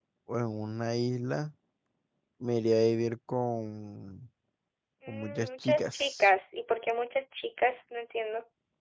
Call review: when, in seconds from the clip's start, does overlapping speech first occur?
5.1 s

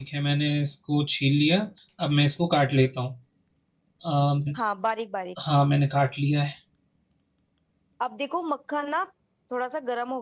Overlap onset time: none

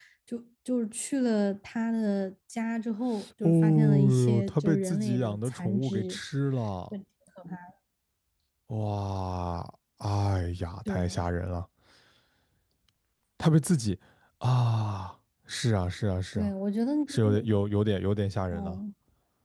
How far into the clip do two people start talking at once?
3.4 s

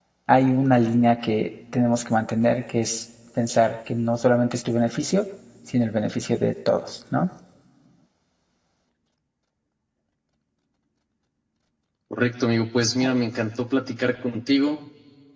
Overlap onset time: none

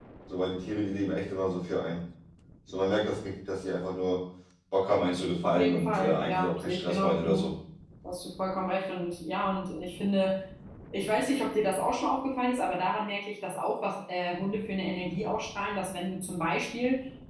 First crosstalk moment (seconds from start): 5.4 s

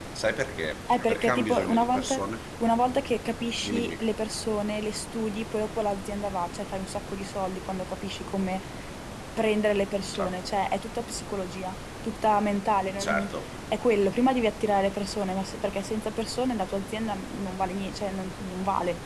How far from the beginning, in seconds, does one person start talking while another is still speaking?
0.9 s

